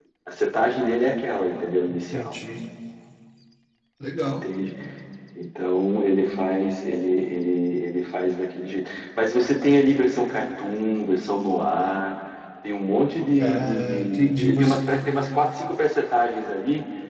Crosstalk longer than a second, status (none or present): present